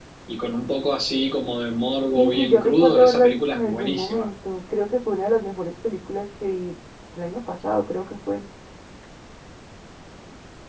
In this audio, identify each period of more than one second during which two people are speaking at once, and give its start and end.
2.1-4.3

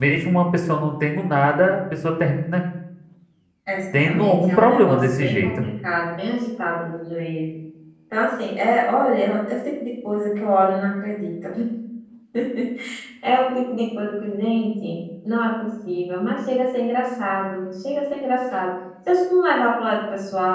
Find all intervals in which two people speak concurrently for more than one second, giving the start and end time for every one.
4.0-5.5

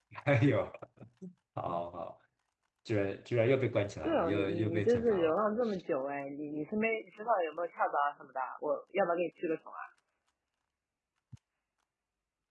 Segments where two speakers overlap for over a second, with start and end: 4.0-5.3

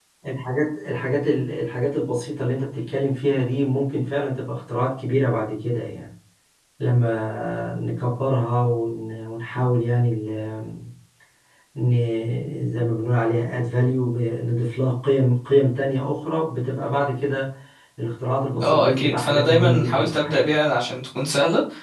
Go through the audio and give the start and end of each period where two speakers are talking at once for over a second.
18.6-20.5

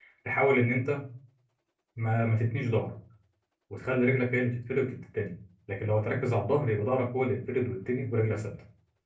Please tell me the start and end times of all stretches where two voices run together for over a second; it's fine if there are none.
none

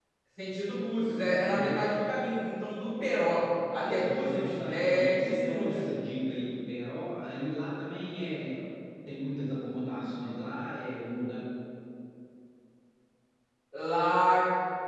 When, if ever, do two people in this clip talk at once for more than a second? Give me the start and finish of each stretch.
3.8-5.8

